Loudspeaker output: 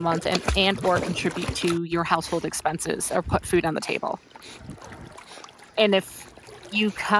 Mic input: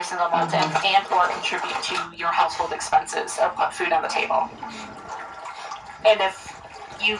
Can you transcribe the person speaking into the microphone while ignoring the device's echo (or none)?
Uh-huh.